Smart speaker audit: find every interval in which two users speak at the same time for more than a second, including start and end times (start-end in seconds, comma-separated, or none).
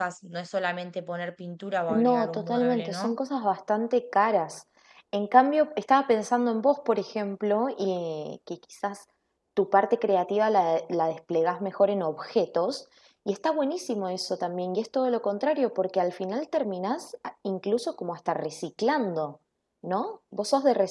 1.9-3.2